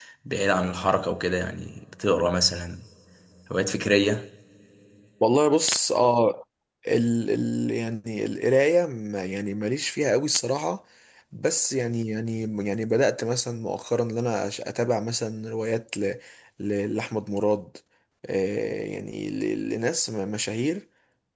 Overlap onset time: none

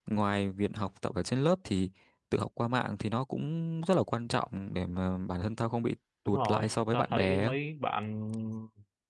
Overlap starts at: 6 s

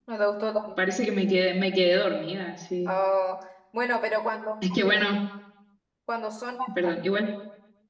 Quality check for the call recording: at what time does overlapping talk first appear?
none

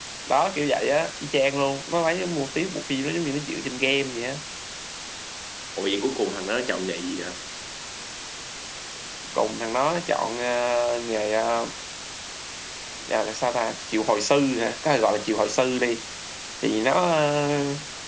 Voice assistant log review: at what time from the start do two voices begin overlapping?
none

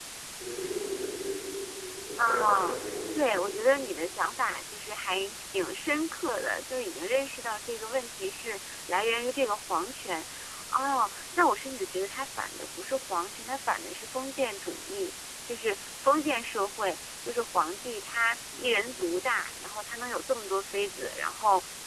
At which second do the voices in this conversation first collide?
2 s

